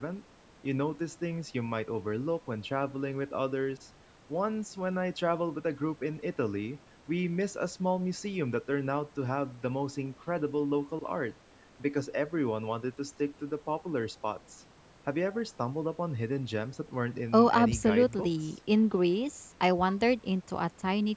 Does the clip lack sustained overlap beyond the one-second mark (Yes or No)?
No